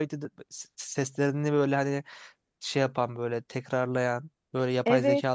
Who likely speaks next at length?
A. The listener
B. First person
A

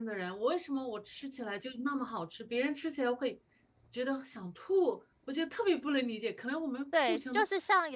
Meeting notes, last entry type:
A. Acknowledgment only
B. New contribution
B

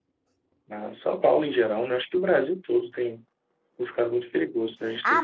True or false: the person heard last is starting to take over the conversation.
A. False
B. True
B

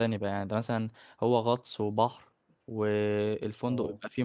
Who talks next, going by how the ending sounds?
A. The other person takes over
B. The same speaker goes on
B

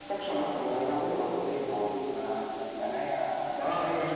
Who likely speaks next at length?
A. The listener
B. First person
A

